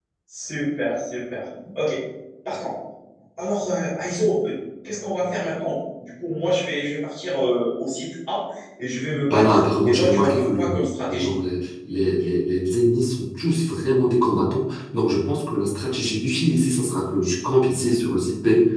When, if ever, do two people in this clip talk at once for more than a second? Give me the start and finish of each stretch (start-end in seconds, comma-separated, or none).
9.3-11.3